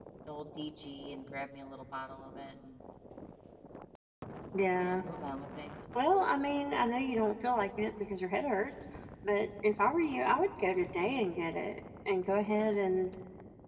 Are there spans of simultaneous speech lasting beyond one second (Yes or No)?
No